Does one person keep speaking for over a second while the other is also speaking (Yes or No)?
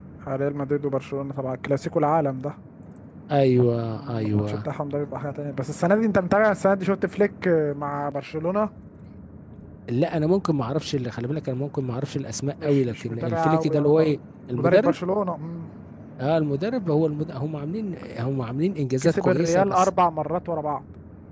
Yes